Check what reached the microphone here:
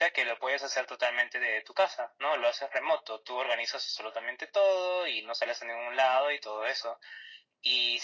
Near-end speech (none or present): none